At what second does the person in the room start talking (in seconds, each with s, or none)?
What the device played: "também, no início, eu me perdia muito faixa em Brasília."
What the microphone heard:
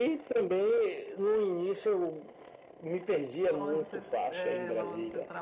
3.4 s